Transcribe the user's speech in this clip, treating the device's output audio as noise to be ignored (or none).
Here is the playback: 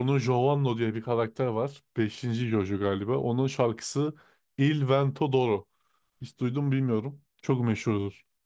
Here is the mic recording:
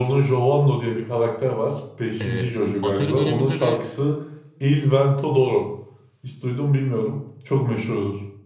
Eee, Atari döneminde de